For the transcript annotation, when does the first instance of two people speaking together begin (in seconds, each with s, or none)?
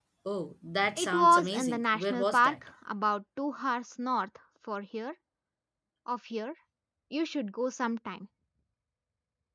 1.0 s